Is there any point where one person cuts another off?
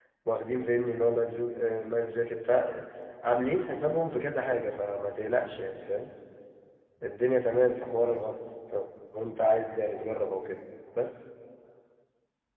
No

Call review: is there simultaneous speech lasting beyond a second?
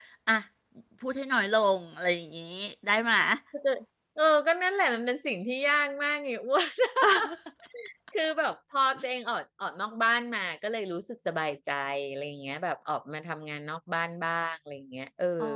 No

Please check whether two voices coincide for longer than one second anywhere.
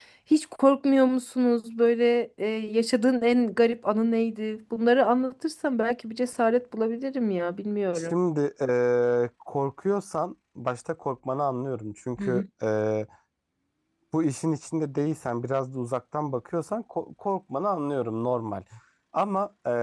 No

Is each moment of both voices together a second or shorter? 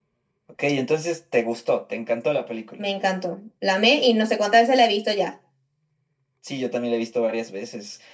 Yes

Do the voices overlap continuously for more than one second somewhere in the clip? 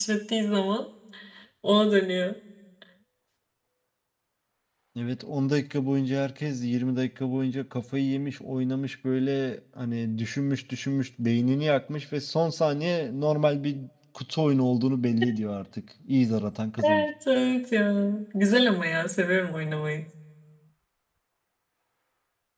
No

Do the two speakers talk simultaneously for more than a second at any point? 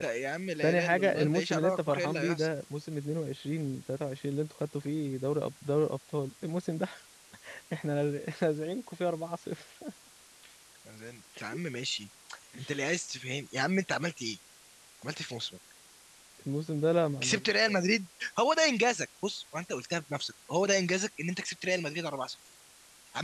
Yes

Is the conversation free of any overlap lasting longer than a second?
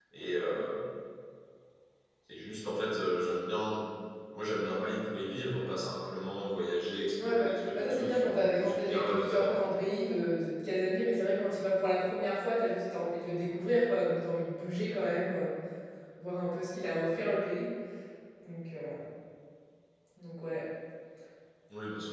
No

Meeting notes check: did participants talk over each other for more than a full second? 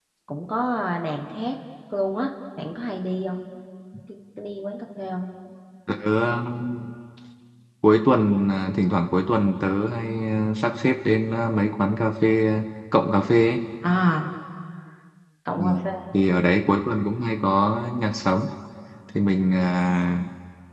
No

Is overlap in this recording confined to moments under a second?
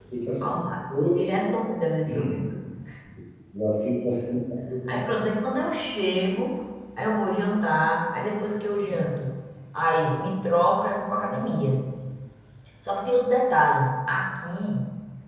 Yes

